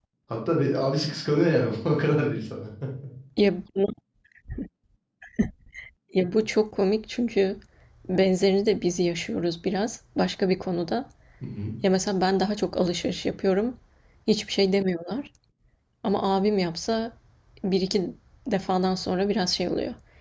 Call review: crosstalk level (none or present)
none